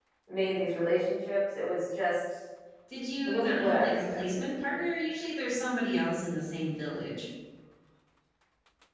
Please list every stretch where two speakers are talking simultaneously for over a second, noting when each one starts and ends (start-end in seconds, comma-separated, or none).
3.2-4.5